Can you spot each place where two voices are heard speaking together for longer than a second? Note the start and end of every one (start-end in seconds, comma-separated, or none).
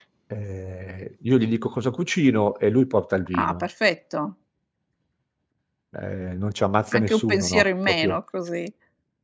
6.9-8.2